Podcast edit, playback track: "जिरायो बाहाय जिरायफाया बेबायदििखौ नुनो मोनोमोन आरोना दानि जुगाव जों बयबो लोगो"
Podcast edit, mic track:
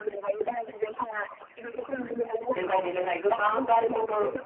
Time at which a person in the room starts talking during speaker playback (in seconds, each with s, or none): 2.6 s